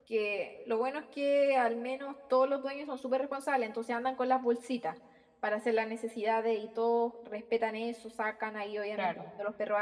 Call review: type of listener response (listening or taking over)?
listening